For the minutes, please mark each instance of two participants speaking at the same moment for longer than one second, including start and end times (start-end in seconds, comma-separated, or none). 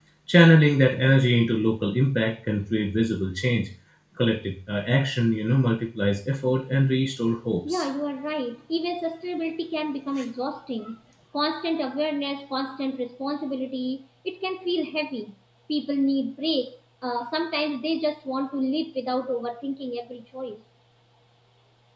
none